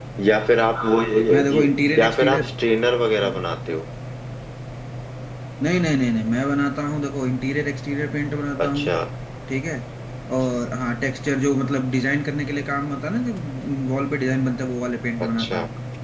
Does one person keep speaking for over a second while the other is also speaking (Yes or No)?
No